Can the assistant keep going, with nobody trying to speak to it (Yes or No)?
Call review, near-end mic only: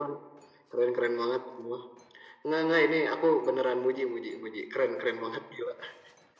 Yes